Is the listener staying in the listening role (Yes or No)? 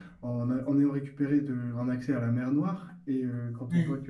Yes